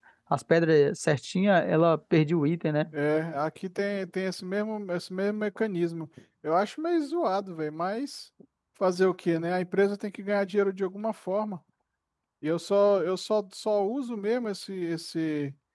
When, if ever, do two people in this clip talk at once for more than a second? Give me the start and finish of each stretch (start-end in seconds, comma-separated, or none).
none